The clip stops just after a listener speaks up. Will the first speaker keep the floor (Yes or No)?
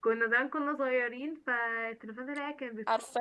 Yes